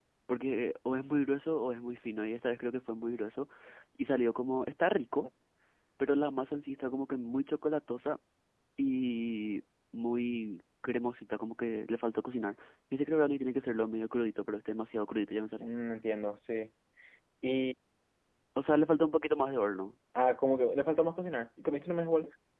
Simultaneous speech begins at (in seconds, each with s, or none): none